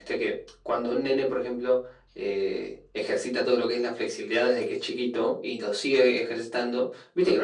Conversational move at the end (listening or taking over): listening